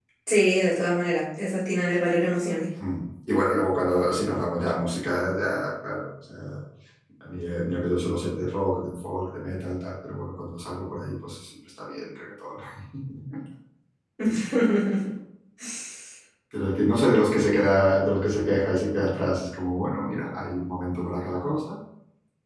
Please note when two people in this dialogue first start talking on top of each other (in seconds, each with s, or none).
none